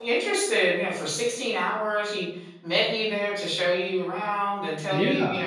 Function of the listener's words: listening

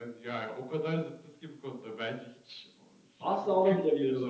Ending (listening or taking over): taking over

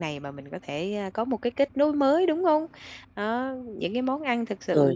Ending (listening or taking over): listening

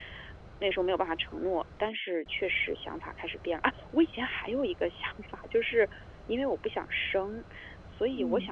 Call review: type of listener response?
listening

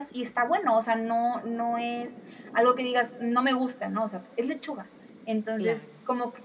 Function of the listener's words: listening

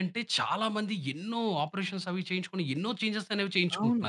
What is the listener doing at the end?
taking over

